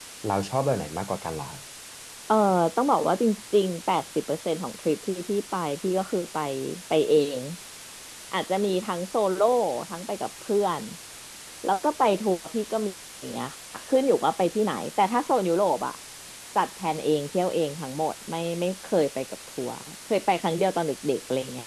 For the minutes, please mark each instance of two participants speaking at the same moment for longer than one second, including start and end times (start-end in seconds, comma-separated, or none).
none